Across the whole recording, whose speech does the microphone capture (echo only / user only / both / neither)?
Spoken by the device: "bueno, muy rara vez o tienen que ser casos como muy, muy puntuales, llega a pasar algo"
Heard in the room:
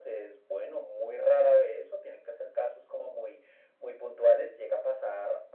echo only